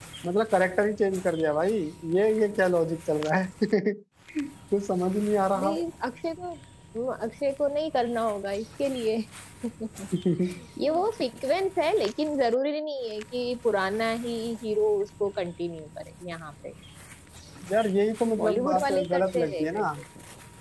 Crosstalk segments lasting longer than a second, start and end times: 18.4-19.9

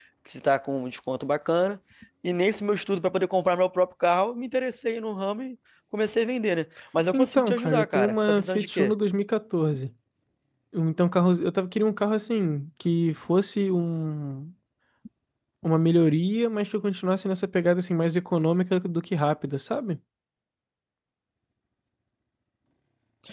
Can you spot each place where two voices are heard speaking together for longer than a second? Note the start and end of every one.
7.1-8.9

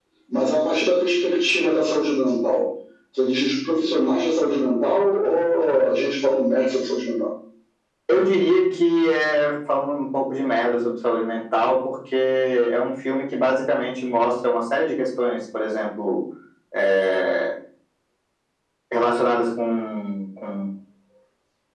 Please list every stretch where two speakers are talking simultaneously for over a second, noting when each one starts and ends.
none

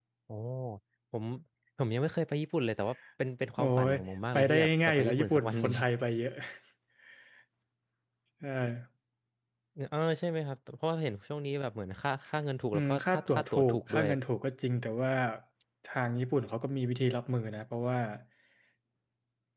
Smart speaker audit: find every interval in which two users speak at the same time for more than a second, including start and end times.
4.3-5.7, 12.7-14.1

